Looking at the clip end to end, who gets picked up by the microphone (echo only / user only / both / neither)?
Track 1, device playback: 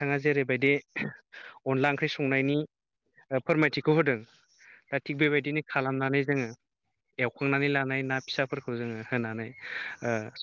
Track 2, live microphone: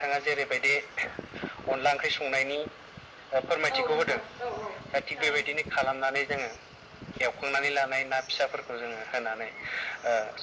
both